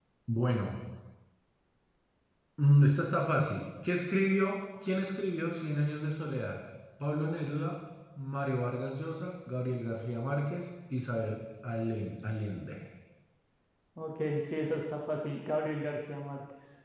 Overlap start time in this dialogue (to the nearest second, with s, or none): none